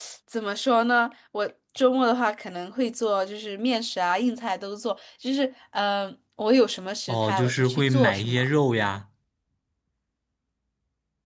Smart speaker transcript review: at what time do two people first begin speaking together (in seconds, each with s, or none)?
7.1 s